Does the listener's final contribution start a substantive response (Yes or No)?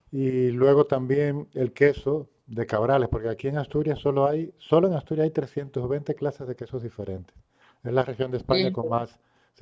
No